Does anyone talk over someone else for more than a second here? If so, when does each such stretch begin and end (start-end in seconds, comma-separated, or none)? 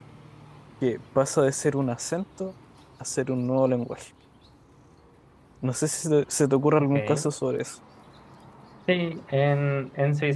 none